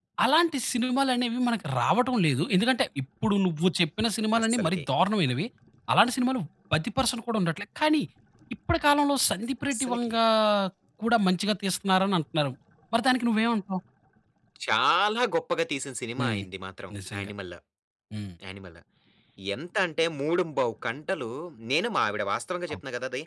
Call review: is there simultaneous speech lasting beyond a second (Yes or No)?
No